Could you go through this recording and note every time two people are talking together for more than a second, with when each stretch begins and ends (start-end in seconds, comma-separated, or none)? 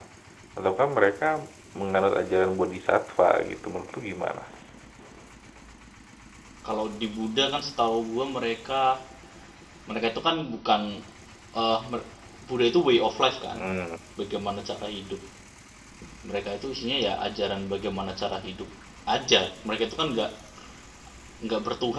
none